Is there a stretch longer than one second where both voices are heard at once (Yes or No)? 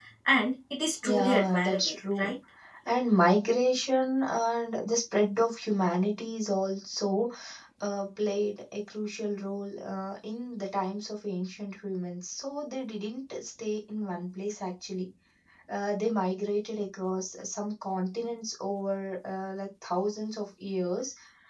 Yes